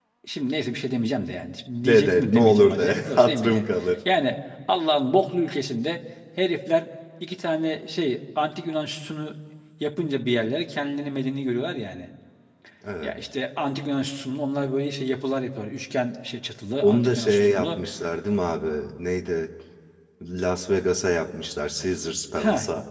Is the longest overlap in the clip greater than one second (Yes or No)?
Yes